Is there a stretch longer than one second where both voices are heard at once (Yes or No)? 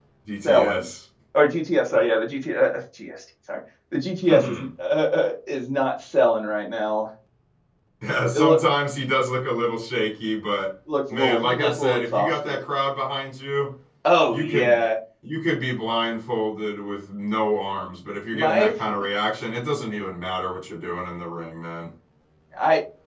Yes